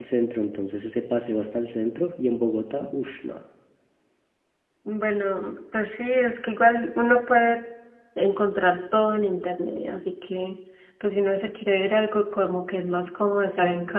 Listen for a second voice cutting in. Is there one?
No

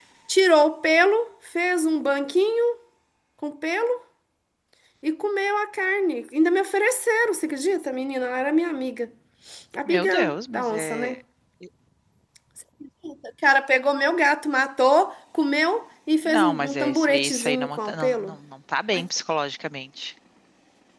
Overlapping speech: Yes, from 9.8 s

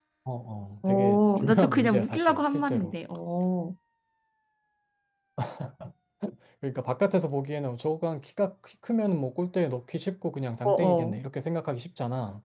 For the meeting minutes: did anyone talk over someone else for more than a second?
Yes, from 0.8 s

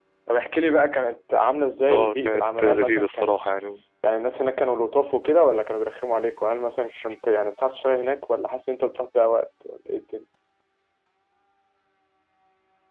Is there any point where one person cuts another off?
Yes, from 1.9 s

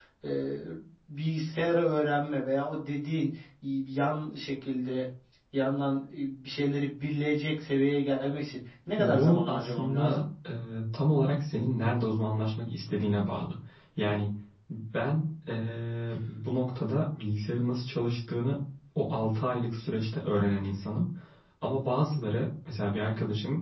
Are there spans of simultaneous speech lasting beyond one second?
Yes, from 9.0 s

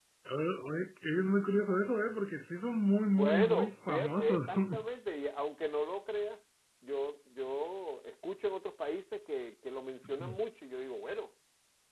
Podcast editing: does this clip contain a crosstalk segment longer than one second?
Yes, from 3.2 s

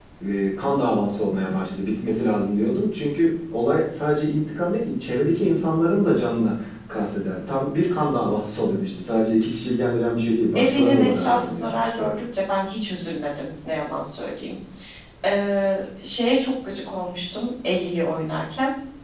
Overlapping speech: Yes, from 10.6 s

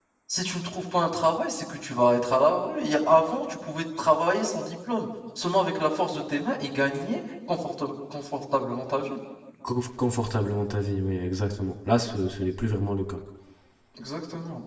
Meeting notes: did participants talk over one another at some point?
No

